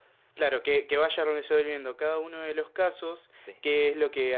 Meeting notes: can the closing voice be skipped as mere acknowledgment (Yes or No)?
Yes